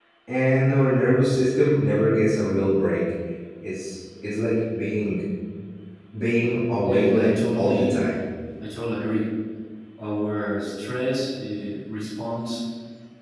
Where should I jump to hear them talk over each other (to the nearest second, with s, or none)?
7 s